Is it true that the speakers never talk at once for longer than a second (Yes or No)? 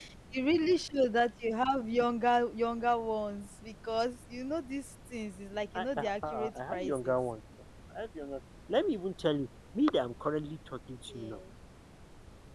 No